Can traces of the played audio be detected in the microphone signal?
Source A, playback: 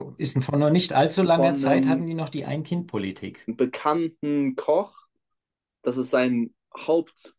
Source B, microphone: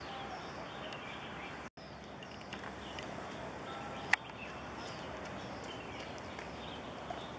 No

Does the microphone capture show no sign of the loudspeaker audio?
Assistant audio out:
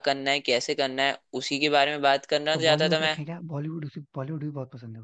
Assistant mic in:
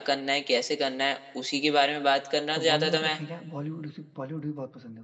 No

